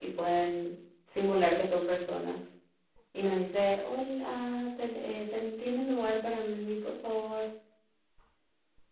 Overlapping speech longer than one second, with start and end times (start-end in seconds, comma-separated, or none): none